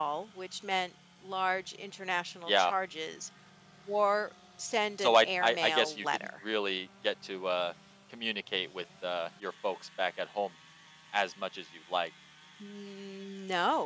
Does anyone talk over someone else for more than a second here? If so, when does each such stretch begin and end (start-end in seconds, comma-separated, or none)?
5.0-6.3